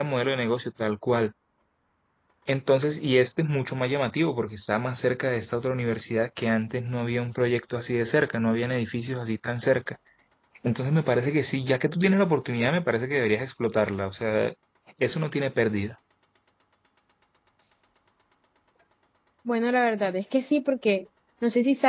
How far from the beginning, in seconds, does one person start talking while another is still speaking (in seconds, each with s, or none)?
none